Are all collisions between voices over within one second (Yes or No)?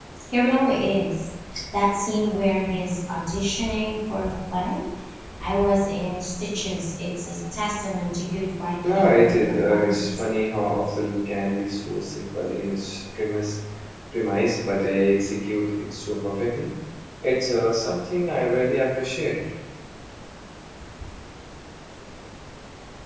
No